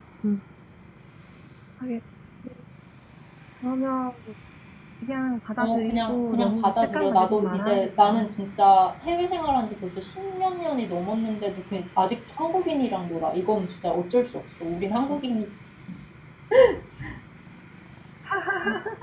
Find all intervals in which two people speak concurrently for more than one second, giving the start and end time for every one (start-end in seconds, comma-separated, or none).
5.6-8.3